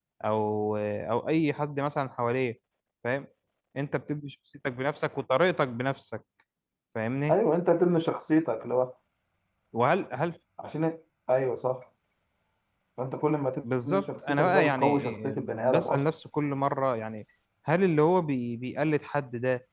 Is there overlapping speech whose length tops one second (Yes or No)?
Yes